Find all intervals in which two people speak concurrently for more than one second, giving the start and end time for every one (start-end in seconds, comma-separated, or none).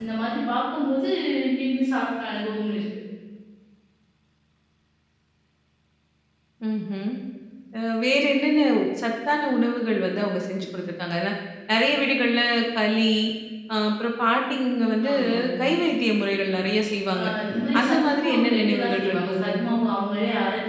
17.8-19.7